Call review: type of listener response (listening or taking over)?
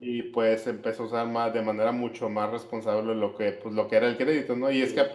listening